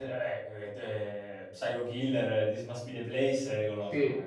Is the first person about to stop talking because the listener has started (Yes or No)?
Yes